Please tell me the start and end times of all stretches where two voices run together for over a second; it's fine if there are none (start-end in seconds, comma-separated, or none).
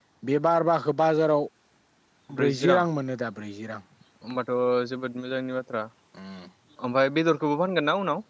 none